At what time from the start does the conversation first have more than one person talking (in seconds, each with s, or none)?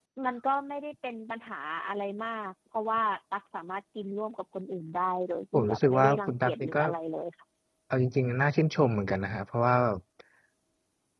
5.5 s